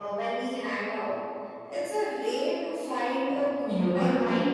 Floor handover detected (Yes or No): Yes